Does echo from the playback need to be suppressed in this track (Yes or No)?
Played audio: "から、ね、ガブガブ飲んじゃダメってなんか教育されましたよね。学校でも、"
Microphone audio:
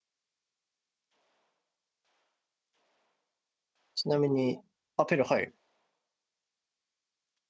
No